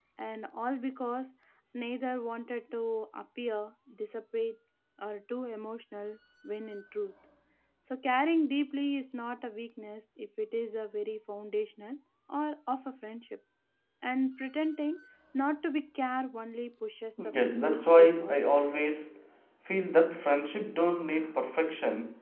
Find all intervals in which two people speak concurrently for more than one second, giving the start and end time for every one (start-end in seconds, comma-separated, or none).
17.2-18.6